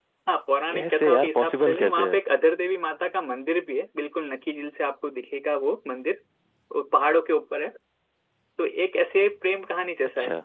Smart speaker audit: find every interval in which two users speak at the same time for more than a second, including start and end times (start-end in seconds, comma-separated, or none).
0.7-2.2